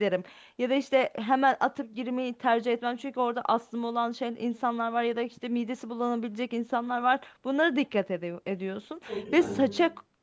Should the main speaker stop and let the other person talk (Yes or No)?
No